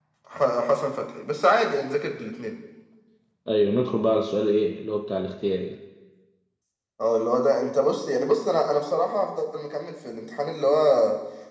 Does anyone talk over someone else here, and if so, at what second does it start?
none

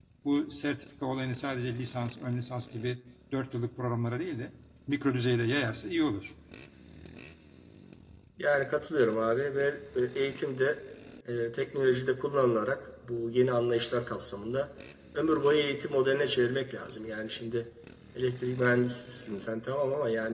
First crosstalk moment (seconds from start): none

